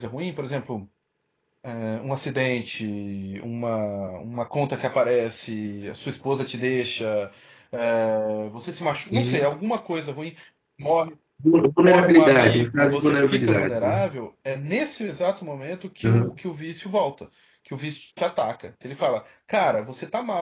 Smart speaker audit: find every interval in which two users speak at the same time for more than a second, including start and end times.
11.8-14.0

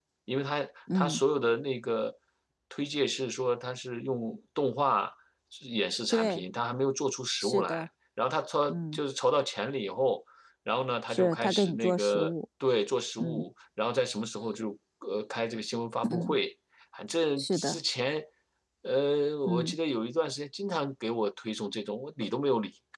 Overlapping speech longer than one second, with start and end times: 11.1-12.3

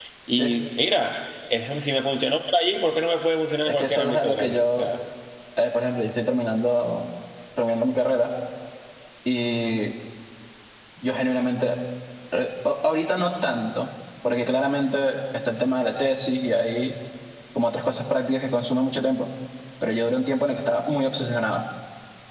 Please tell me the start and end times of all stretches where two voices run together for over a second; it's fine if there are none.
3.7-4.9

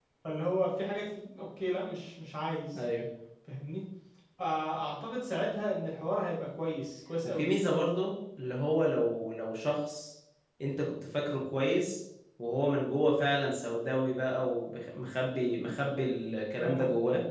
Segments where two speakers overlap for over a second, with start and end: none

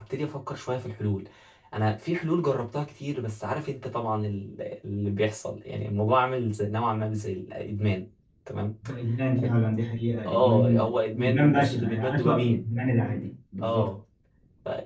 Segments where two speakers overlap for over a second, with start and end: 10.2-12.7

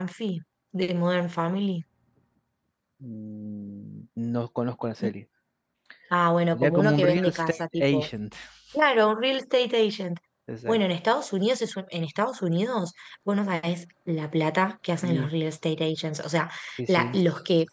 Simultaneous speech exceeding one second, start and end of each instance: 6.5-8.1

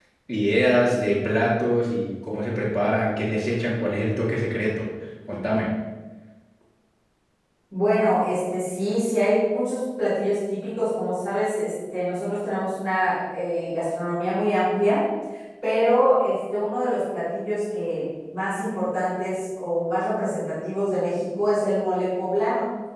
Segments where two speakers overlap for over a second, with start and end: none

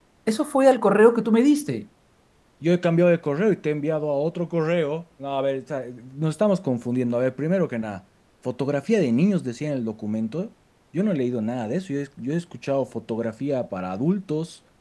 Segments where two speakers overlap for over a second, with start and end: none

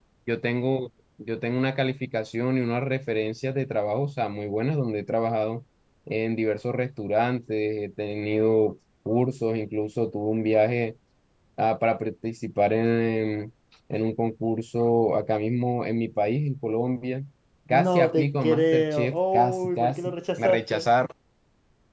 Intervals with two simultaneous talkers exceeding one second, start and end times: 17.7-20.9

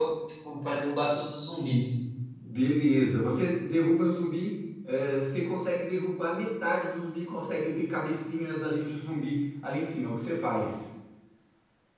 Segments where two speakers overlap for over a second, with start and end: none

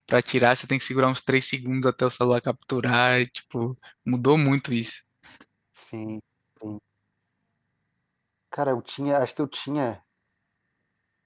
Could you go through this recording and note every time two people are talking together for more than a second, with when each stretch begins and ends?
none

